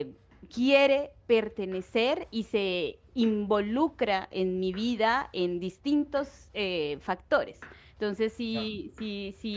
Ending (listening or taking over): listening